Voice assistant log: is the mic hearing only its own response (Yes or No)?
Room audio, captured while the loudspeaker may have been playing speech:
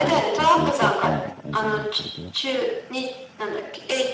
No